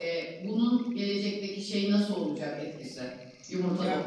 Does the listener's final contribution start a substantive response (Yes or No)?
Yes